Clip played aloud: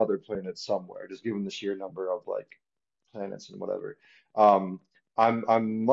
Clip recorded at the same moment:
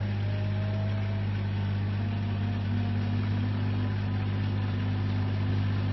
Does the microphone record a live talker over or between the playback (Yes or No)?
No